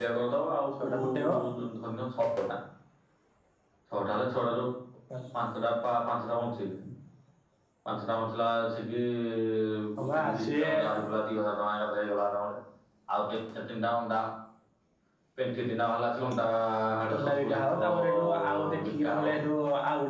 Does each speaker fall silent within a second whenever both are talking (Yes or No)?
No